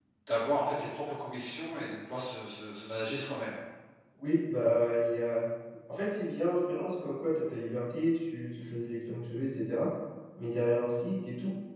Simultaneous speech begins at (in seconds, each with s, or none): none